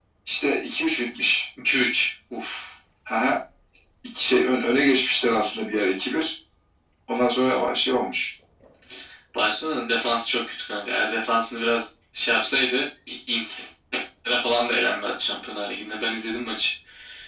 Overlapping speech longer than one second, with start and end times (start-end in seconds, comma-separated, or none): none